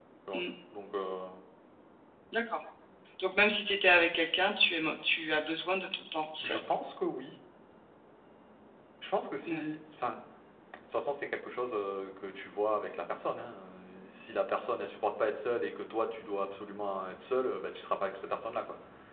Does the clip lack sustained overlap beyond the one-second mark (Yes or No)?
Yes